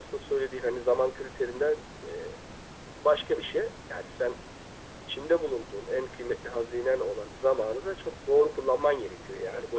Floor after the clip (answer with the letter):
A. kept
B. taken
B